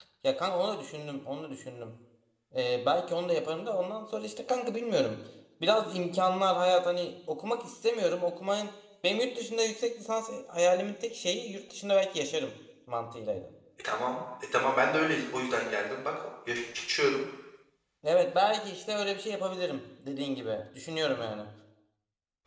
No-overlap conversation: Yes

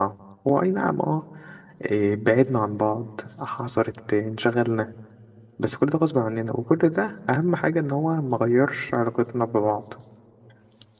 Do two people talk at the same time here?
No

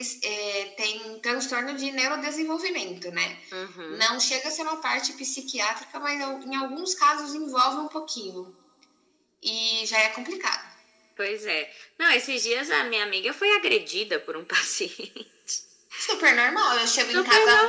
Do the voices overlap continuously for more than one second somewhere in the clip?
No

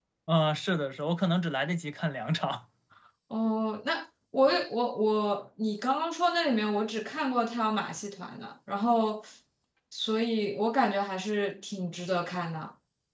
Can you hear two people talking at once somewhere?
No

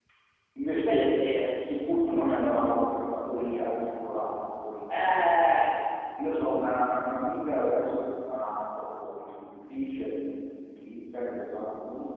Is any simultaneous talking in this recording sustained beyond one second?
No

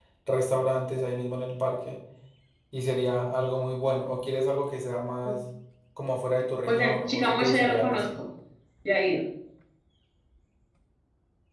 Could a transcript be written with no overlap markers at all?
No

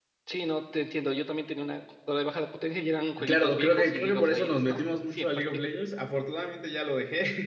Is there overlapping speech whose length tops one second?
Yes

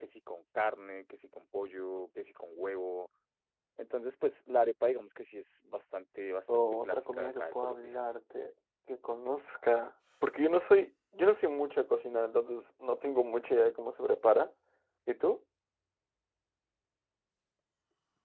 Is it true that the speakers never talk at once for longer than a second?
No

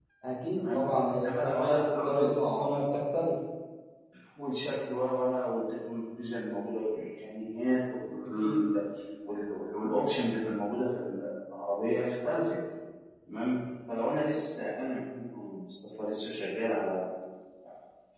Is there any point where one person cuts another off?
Yes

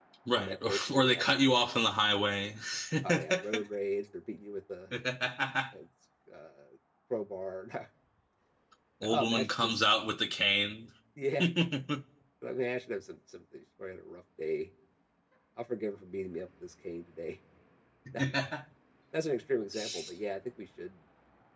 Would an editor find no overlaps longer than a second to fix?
No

